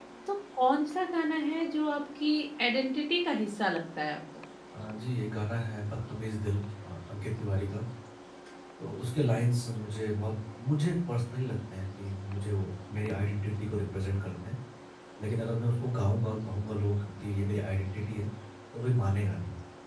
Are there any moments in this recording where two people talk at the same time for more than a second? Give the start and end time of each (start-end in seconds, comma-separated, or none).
none